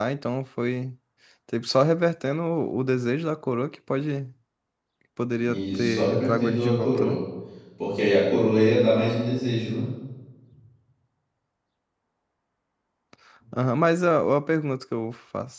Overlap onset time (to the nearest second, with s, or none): 5 s